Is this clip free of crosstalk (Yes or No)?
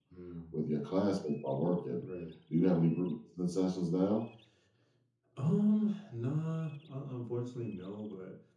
Yes